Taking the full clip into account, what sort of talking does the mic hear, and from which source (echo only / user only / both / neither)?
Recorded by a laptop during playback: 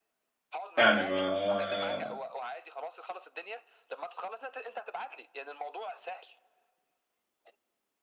both